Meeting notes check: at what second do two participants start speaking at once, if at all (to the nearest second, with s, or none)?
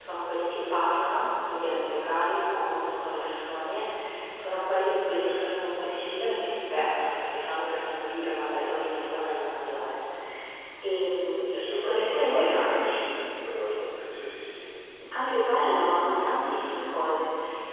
12 s